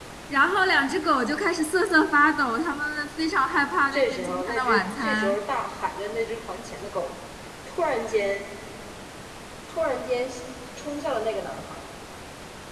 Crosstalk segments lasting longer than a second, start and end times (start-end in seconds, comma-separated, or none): 3.9-5.4